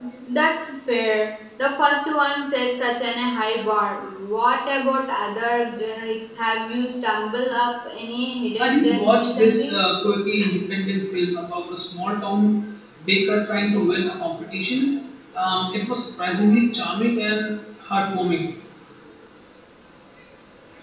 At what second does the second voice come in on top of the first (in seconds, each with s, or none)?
8.6 s